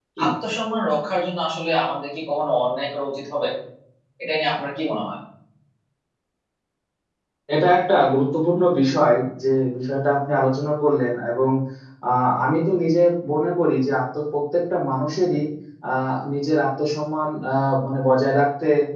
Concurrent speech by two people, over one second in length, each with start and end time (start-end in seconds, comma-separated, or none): none